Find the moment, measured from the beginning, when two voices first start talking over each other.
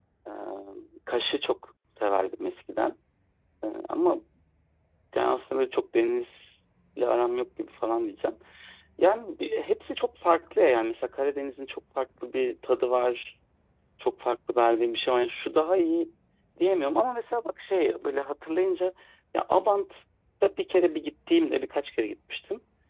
none

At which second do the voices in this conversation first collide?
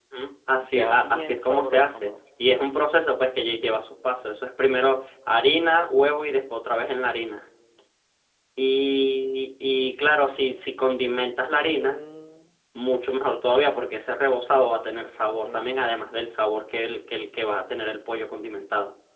1 s

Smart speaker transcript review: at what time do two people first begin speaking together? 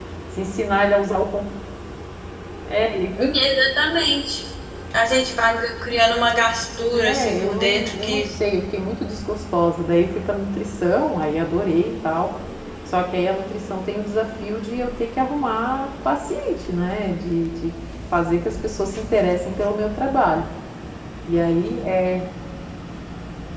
7 s

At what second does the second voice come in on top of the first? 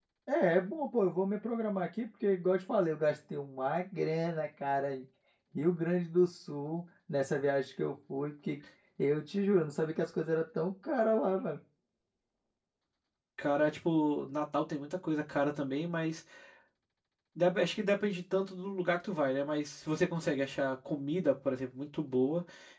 none

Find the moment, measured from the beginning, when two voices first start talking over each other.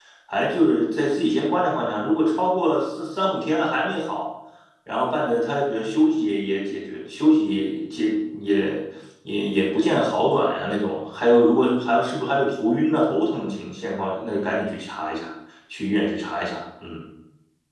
none

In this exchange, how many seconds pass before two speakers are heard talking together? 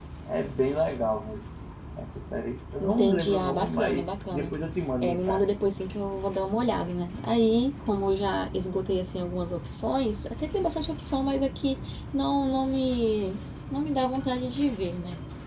3 s

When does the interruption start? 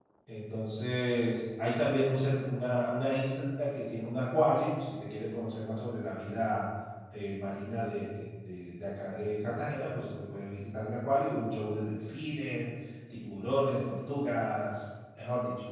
none

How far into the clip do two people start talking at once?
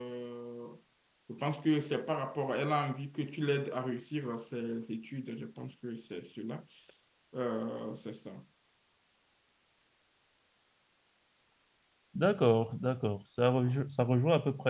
none

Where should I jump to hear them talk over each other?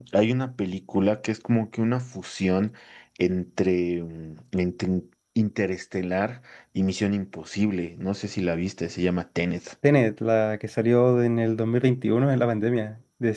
none

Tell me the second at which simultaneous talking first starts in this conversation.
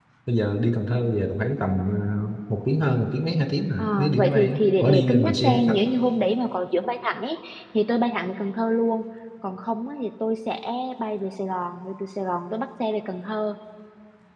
4 s

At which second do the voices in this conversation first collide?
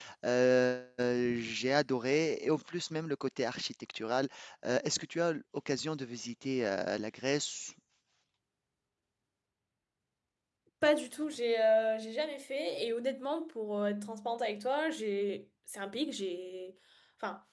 none

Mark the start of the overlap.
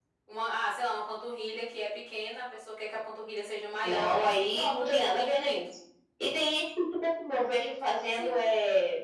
4 s

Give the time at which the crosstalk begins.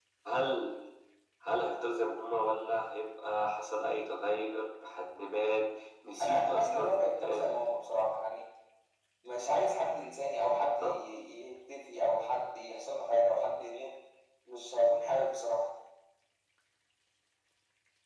6 s

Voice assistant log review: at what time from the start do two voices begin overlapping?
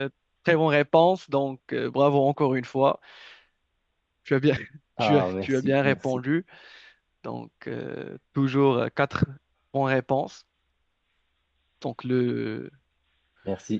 5 s

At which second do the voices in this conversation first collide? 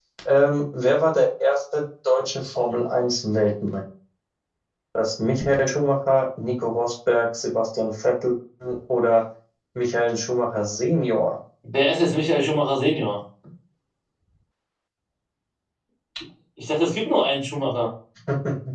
none

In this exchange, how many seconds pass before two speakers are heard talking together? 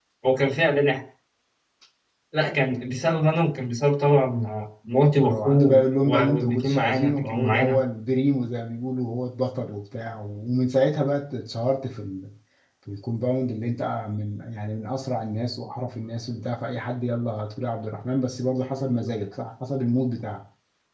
5 s

